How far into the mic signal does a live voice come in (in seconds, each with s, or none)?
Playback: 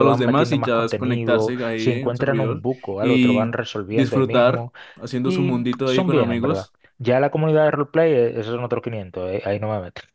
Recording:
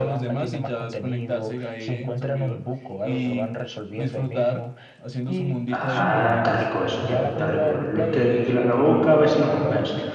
5.7 s